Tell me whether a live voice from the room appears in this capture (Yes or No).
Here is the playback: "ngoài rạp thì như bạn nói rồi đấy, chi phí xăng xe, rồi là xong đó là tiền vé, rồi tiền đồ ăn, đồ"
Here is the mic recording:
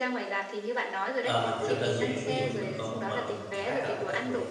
Yes